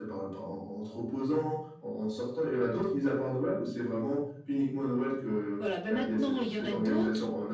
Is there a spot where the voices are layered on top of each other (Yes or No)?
Yes